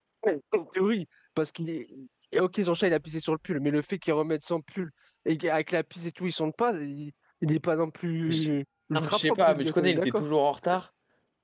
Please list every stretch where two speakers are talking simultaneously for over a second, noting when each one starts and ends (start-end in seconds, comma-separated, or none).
8.9-10.2